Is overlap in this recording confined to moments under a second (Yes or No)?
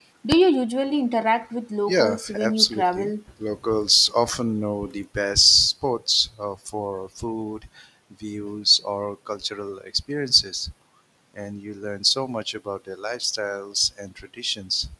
No